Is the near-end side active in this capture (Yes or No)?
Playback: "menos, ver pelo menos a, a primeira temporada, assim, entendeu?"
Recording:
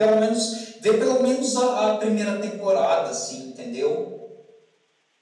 No